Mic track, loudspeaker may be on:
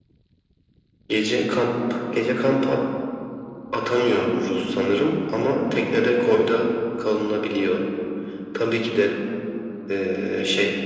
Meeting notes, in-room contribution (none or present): none